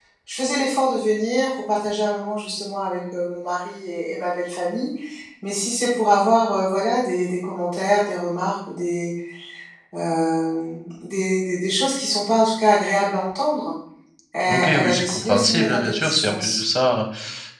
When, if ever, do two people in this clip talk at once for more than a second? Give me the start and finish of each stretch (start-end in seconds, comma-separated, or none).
14.5-16.6